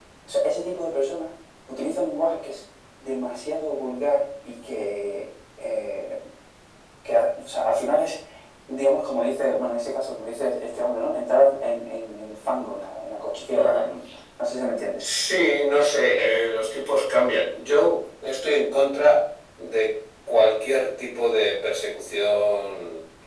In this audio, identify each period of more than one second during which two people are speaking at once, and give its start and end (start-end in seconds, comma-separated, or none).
none